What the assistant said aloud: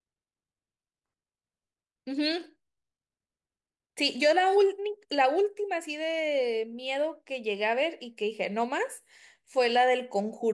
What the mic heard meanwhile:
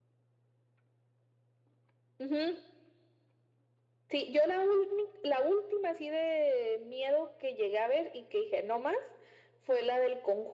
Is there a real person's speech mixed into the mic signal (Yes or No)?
No